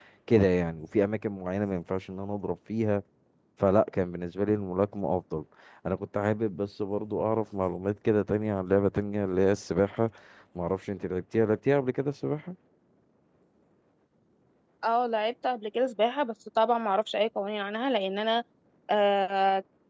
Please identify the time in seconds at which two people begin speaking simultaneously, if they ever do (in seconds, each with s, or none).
none